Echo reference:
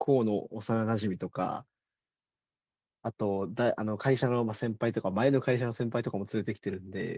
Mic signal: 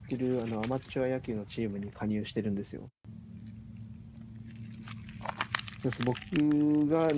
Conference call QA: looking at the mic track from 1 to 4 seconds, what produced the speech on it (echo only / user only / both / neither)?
user only